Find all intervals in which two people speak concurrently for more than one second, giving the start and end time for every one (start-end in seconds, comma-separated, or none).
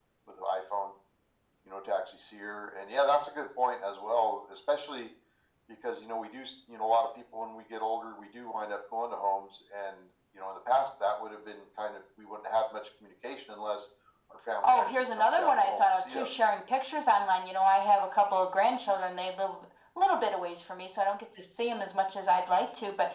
14.6-16.4